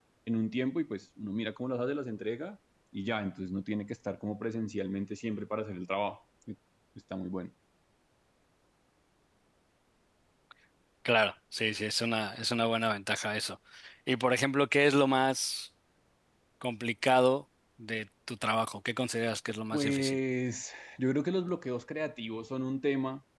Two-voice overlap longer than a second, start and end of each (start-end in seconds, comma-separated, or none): none